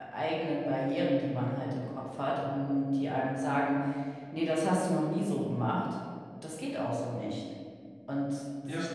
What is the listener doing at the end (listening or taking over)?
listening